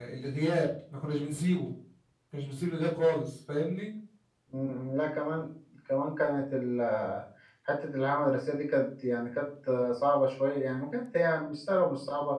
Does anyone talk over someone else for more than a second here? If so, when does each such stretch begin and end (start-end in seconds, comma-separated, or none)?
none